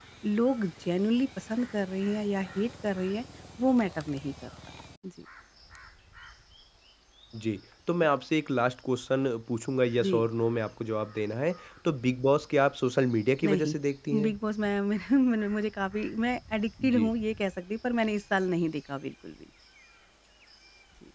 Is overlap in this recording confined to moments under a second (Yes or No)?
Yes